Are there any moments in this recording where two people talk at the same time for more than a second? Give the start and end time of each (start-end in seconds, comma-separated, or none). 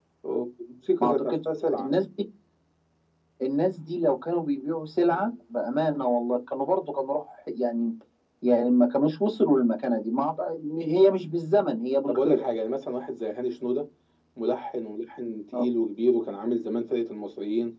none